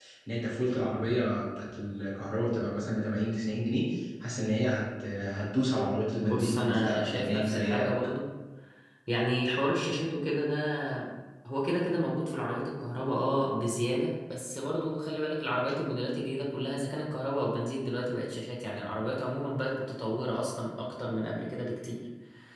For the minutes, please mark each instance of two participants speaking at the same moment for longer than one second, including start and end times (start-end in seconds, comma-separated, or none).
6.2-7.9